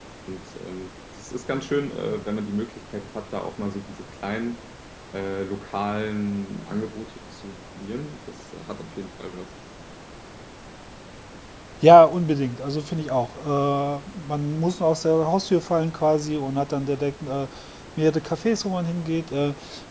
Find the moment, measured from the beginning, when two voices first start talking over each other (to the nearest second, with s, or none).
none